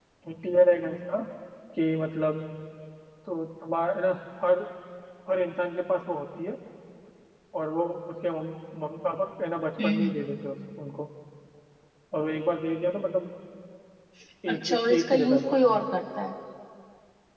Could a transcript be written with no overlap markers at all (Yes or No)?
No